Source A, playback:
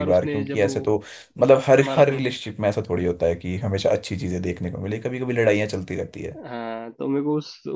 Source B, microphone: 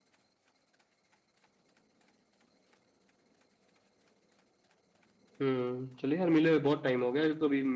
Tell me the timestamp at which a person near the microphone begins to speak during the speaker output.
5 s

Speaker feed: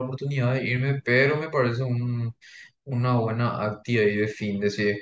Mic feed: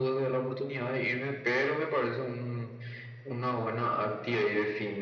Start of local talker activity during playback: none

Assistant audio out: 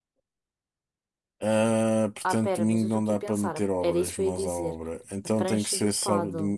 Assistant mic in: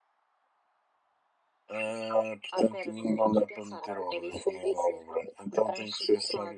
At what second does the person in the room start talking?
none

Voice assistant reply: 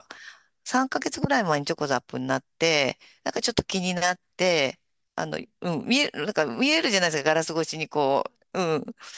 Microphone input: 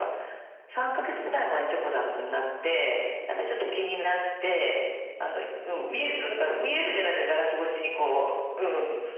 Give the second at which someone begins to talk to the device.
none

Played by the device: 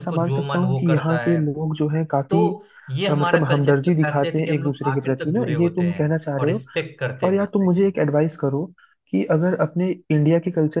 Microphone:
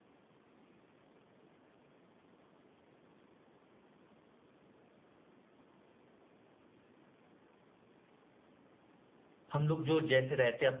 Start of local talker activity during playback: 10 s

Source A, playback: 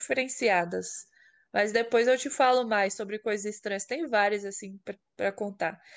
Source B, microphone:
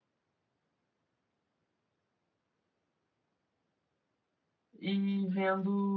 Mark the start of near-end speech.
5 s

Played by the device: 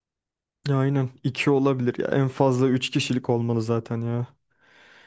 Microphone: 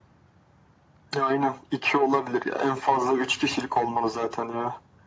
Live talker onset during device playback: none

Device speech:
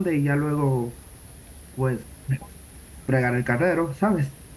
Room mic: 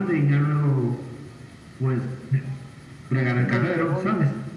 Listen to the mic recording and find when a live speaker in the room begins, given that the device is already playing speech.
3 s

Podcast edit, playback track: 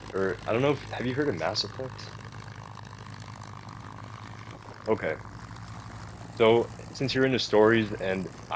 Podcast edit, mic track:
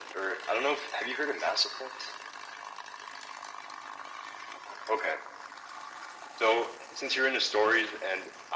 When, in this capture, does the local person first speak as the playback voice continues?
none

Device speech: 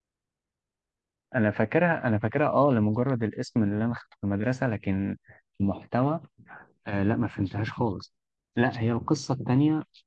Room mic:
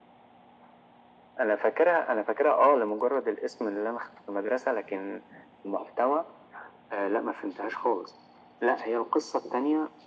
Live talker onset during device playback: none

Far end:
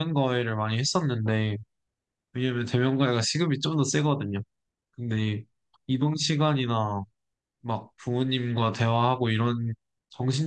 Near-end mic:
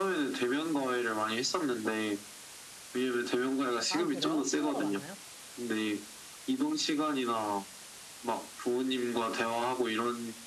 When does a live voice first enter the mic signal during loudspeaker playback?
4 s

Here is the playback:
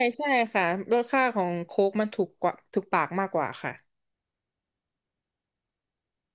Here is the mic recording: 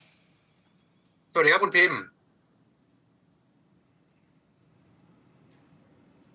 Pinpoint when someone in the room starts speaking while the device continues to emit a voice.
1 s

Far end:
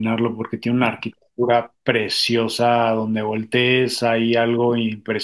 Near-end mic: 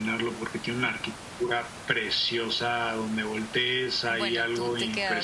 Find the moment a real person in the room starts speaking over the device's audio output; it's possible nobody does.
4 s

